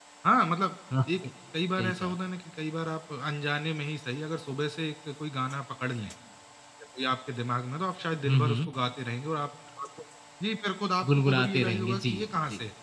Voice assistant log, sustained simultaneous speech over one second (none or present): present